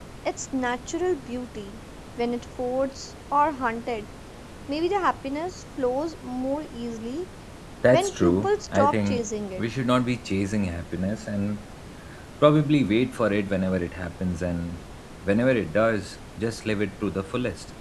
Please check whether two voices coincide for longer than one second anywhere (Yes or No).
Yes